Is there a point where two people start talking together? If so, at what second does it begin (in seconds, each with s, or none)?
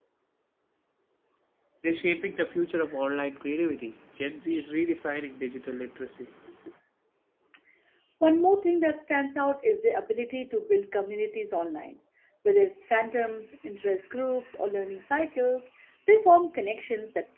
none